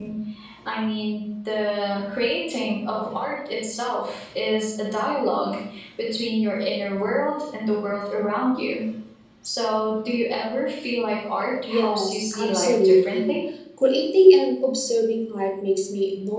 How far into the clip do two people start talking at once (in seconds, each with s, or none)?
11.7 s